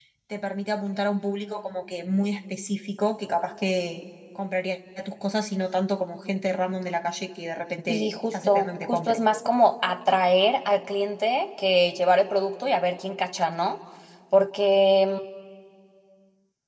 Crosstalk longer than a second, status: present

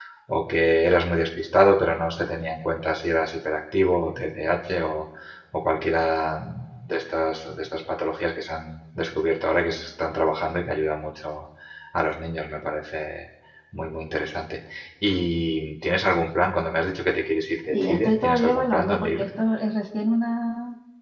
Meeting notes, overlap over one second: present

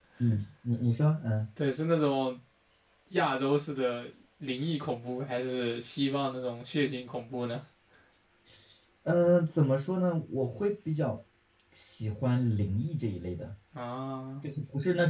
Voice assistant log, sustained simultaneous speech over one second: none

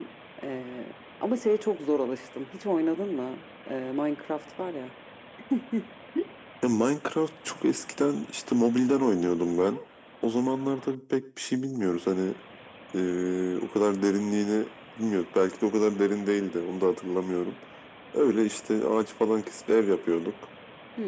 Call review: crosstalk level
none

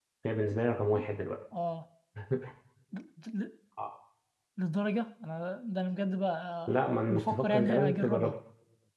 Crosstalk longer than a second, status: present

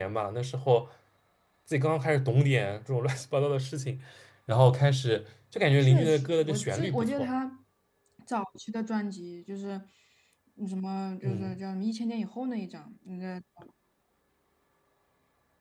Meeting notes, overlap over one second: present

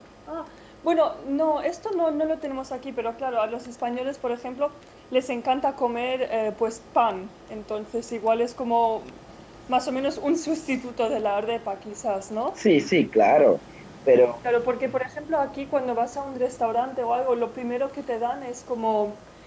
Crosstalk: none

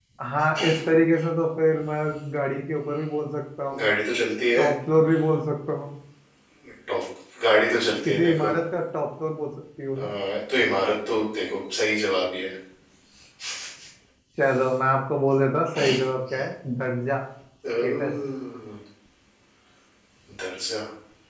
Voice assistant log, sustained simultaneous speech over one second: none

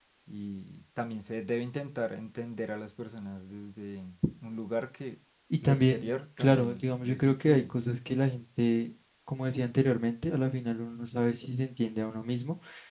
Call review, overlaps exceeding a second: present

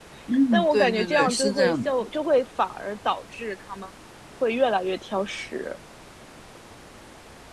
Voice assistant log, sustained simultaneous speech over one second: present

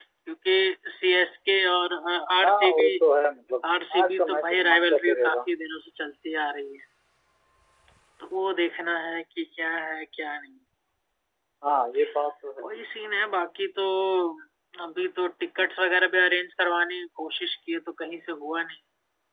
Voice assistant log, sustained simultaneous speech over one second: present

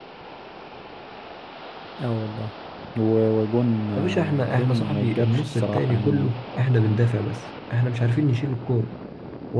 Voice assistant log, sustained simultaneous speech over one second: present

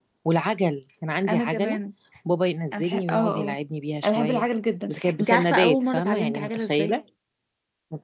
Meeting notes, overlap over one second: present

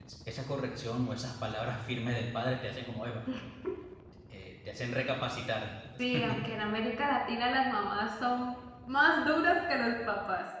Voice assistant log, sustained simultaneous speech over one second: none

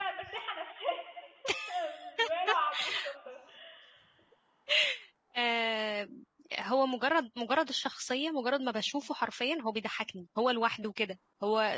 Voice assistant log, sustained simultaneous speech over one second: none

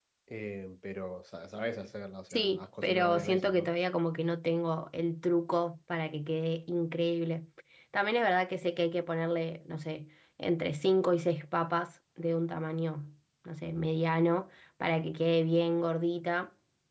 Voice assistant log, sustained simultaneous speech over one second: present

